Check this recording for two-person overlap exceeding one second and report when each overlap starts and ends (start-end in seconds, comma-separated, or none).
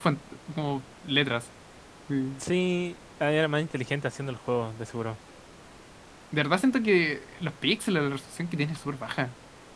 none